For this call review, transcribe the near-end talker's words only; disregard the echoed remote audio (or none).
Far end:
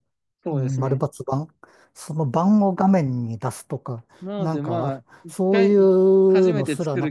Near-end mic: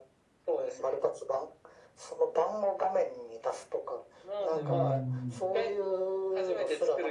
うん。